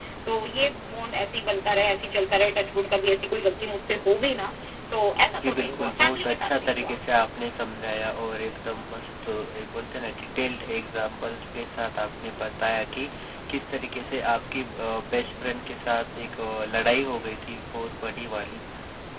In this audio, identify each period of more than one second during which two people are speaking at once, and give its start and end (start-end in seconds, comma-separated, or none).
5.4-6.9